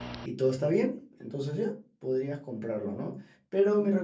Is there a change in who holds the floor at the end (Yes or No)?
No